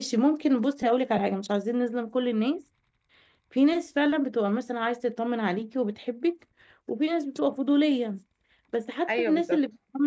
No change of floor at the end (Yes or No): Yes